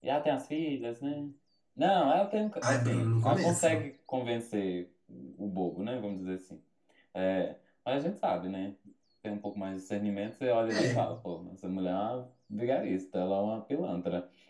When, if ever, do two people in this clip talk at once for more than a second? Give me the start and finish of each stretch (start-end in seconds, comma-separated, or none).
2.6-3.8